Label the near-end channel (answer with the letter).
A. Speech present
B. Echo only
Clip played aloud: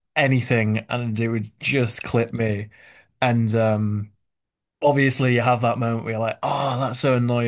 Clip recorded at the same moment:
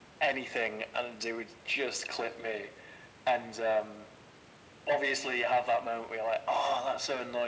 B